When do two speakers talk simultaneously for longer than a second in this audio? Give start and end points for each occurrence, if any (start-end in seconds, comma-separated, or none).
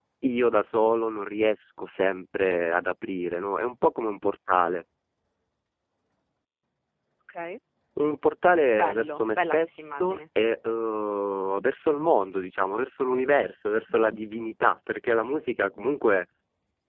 8.7-10.2